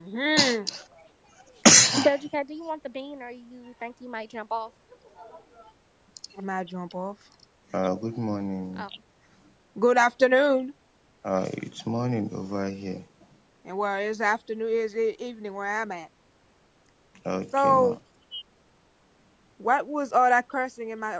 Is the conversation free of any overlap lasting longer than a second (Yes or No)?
Yes